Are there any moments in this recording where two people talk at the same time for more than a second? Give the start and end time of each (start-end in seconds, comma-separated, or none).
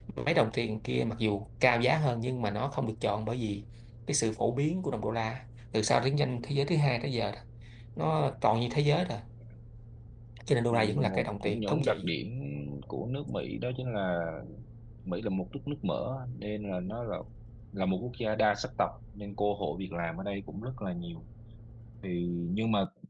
10.7-12.1